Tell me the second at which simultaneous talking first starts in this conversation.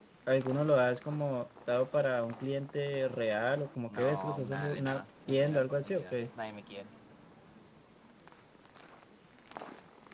3.9 s

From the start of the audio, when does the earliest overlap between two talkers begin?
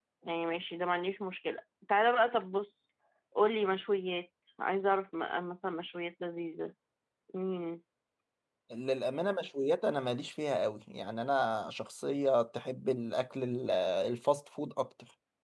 none

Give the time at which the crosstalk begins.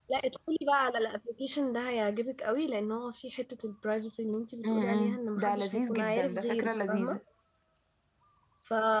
4.6 s

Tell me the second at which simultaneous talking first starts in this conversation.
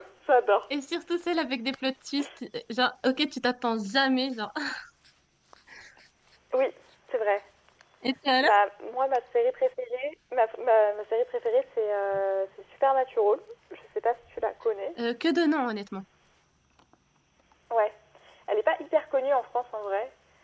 none

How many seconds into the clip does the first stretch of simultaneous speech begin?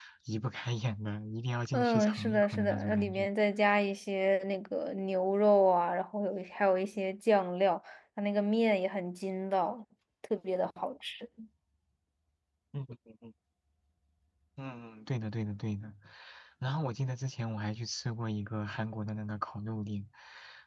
1.7 s

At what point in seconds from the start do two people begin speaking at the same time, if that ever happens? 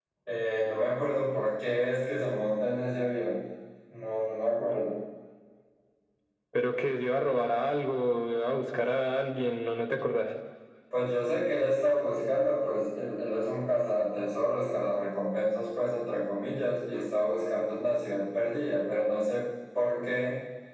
none

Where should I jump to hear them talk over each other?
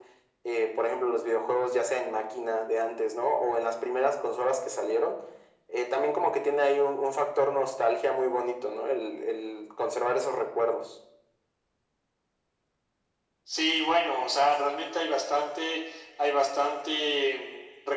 none

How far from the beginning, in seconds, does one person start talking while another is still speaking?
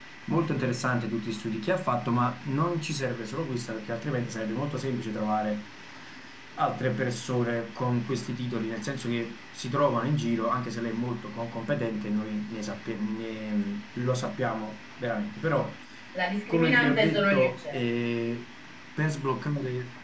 16.5 s

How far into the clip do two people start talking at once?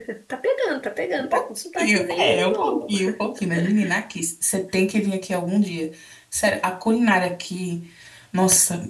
1.3 s

